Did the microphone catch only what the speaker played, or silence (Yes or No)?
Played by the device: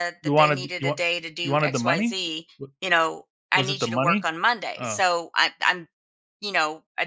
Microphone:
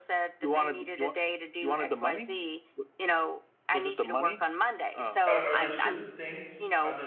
No